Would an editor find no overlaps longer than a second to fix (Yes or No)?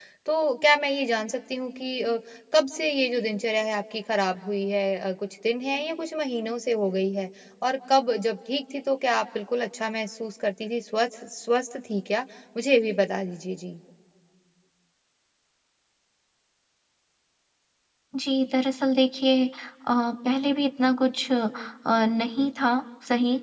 Yes